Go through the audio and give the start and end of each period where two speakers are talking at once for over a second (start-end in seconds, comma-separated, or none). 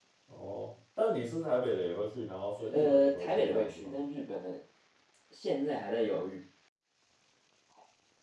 2.6-3.9